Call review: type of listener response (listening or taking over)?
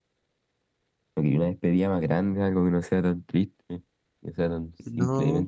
taking over